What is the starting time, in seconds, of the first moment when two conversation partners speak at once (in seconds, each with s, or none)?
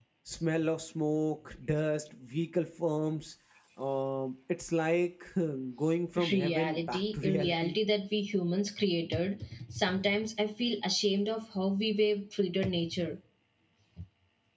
6.2 s